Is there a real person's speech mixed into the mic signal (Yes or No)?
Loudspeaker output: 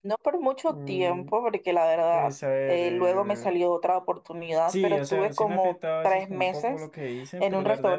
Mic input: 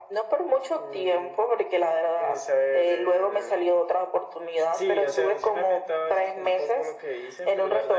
No